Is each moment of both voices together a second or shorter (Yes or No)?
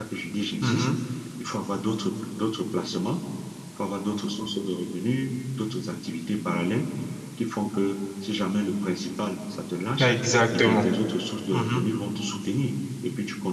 Yes